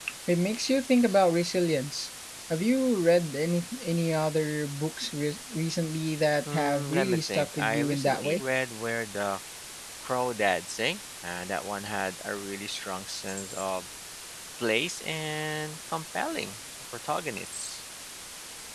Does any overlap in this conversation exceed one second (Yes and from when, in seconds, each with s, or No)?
Yes, from 6.4 s